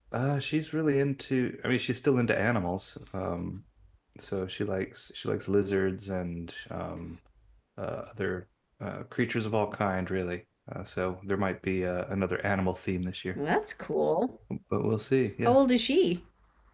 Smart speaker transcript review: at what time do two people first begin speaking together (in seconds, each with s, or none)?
none